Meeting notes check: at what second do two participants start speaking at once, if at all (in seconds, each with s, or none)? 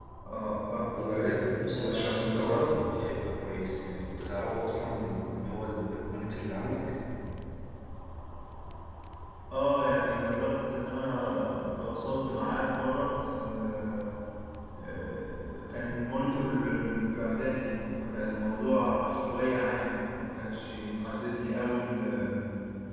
0.9 s